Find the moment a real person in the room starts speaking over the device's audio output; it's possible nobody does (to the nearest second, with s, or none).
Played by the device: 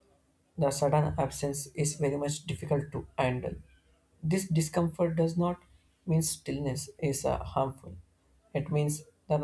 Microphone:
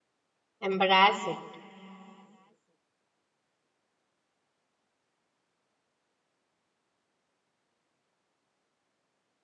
1 s